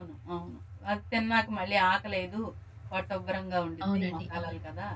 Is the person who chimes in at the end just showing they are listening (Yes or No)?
No